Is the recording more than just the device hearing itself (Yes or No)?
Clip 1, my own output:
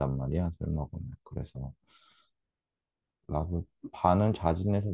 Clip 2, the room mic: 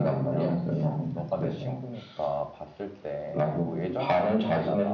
Yes